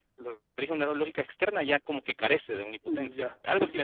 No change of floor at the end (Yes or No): No